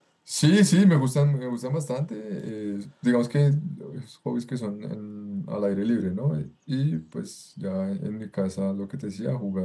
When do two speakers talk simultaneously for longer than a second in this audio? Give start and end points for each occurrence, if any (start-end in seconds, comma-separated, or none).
none